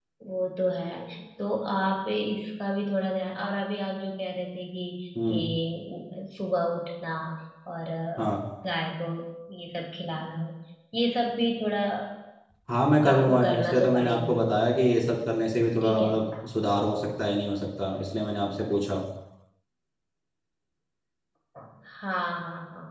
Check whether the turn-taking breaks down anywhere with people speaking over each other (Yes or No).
Yes